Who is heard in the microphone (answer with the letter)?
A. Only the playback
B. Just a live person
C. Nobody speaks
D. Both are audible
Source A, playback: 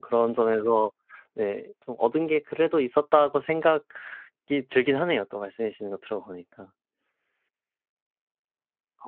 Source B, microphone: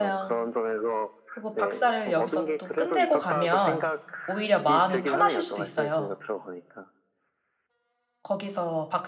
D